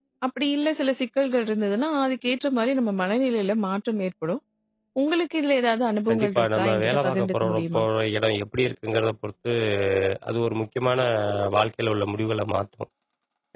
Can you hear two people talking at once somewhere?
Yes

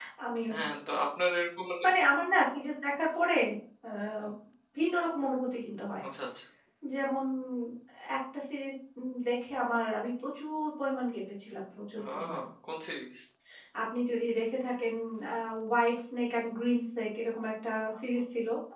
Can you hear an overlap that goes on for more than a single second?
No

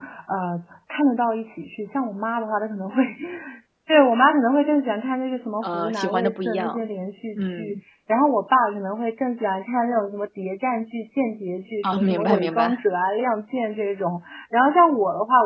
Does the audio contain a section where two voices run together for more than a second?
Yes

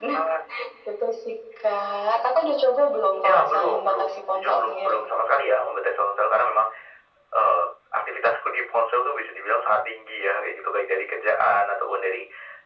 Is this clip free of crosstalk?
No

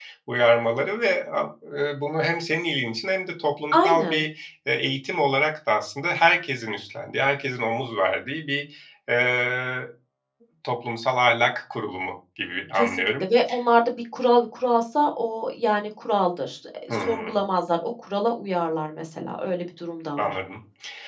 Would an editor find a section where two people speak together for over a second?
No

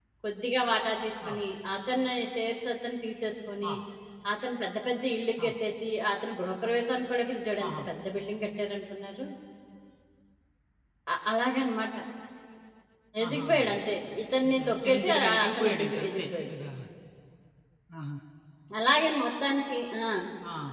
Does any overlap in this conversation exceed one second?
Yes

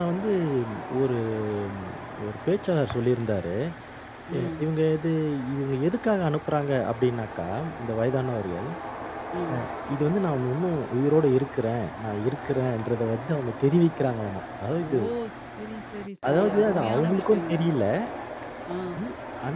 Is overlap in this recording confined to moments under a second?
No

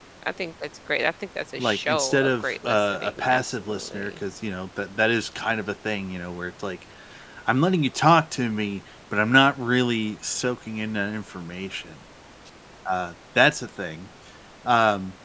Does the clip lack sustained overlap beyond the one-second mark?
No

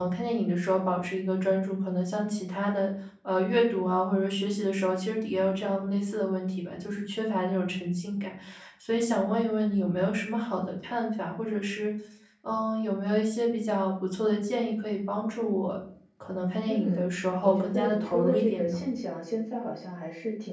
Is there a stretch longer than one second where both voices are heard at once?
Yes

